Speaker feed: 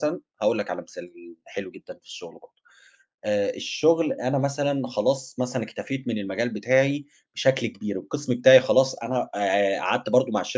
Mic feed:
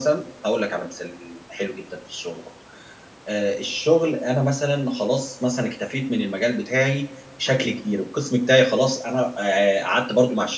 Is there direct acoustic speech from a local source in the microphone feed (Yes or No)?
Yes